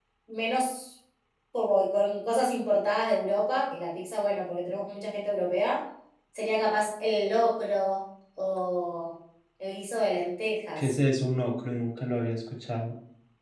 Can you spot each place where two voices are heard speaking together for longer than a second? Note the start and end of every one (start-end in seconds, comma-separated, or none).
none